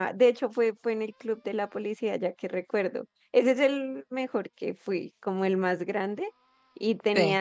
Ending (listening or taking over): listening